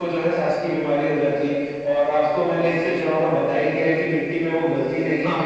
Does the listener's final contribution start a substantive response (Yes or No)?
No